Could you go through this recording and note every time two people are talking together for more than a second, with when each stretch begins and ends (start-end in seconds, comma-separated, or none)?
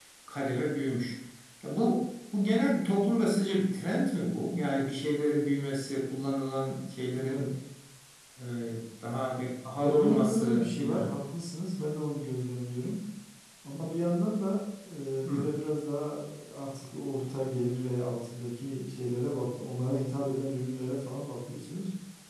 9.8-11.1